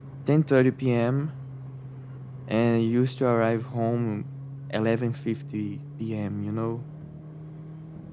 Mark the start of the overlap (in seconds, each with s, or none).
none